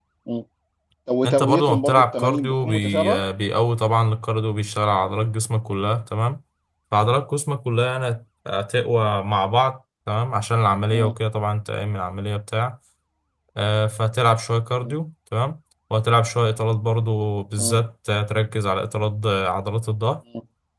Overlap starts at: 1.3 s

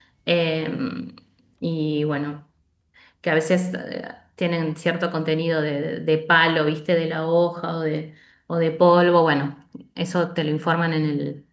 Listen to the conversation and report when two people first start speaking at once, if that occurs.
none

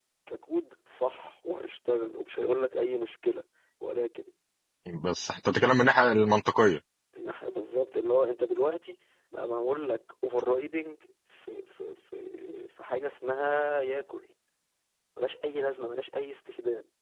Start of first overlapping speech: none

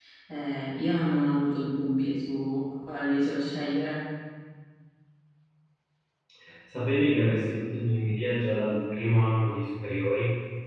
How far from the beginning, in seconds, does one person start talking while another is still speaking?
none

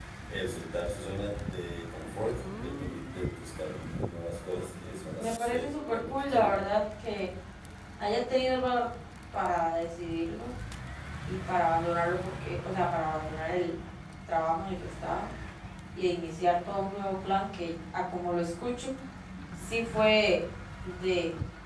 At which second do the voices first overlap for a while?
5.2 s

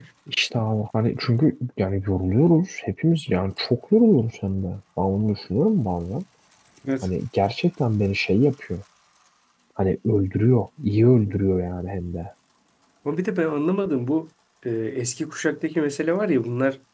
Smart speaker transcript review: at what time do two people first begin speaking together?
none

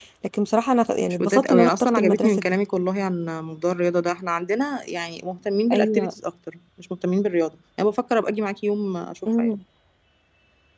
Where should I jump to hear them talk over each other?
1.1 s

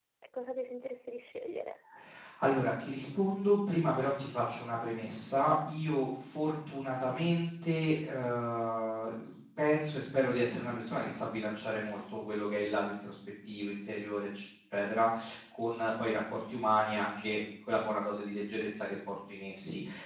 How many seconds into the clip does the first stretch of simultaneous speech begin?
none

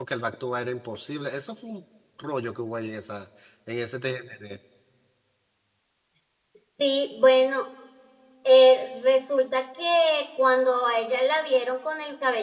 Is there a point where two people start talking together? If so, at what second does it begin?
none

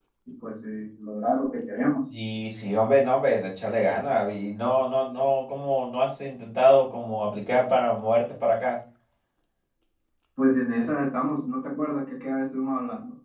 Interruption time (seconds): none

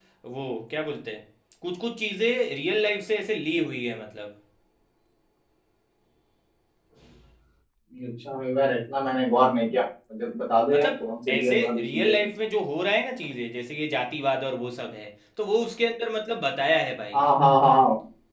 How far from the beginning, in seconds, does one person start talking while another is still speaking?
10.7 s

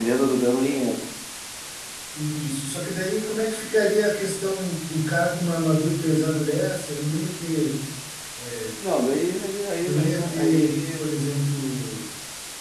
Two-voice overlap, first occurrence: 9.8 s

